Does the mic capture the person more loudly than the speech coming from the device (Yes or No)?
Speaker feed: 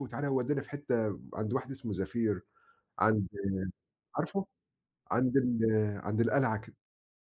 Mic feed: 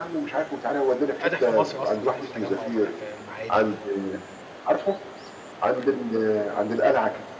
No